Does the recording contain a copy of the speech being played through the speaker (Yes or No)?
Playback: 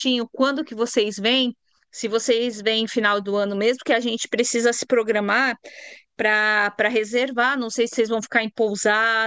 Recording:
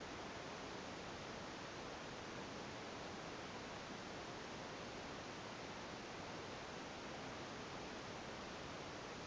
No